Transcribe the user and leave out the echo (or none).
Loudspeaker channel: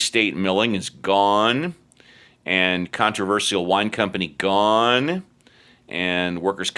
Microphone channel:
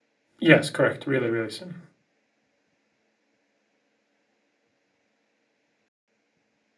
Yes, correct. Really, really soon.